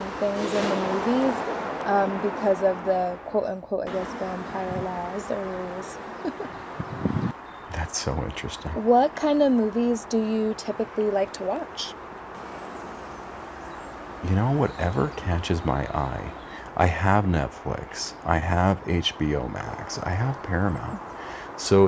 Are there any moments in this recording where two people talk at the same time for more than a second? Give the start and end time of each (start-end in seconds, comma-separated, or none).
none